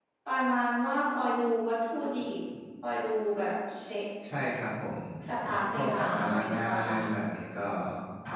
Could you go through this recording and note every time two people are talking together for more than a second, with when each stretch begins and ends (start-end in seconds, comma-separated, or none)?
5.7-6.9